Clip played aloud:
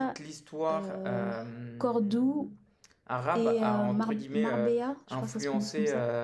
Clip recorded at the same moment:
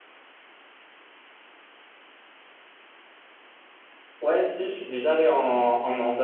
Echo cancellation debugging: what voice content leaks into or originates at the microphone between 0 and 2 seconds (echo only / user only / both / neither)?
neither